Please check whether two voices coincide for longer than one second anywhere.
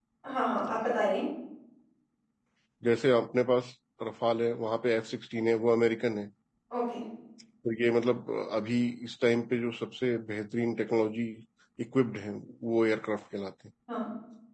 No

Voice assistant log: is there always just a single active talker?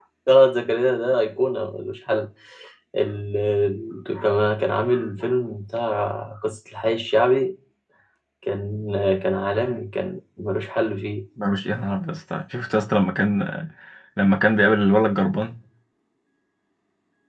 Yes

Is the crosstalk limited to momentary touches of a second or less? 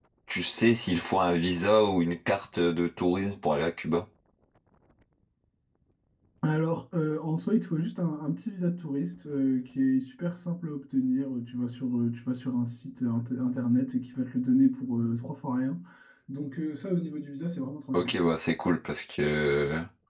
Yes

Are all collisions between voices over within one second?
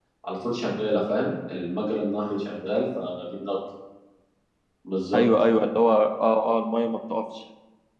Yes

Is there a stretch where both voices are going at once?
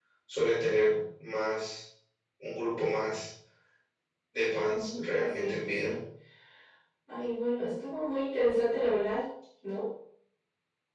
Yes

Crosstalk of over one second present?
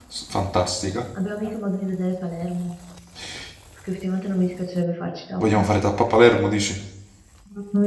No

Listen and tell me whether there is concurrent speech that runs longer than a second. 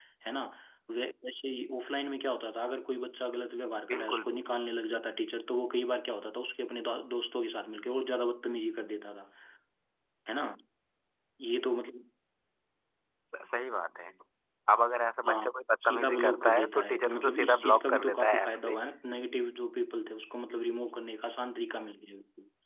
Yes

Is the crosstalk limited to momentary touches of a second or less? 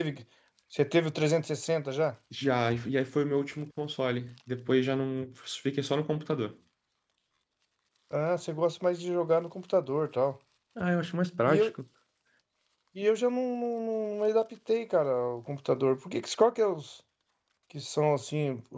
Yes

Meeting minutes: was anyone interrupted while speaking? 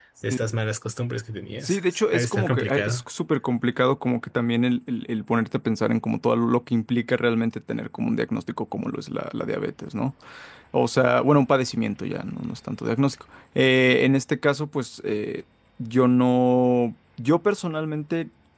Yes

